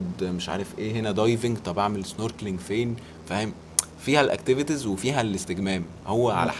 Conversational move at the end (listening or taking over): listening